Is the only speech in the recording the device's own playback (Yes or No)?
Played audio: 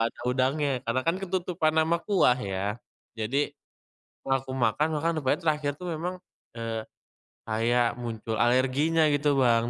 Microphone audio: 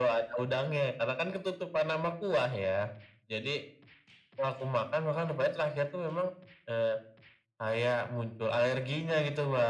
Yes